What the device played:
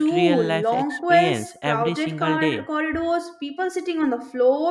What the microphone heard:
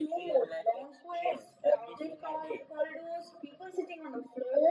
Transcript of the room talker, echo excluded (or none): none